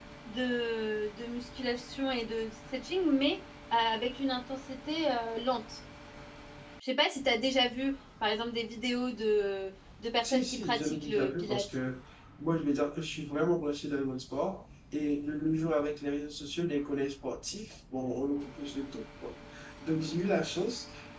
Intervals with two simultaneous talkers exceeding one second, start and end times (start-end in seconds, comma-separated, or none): 10.2-11.7